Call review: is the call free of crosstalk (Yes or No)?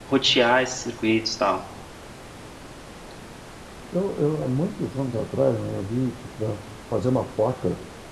Yes